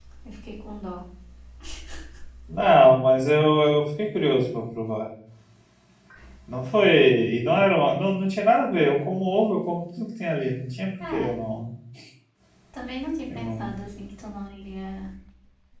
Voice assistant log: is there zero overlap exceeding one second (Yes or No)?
Yes